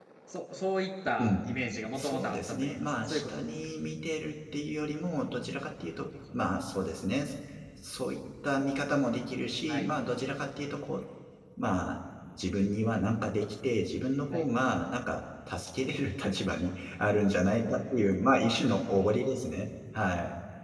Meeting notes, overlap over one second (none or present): present